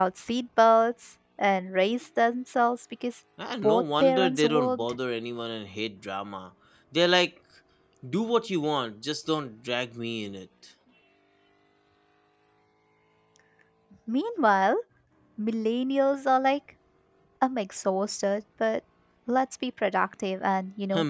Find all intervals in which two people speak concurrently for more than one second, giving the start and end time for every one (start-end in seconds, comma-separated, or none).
3.6-5.0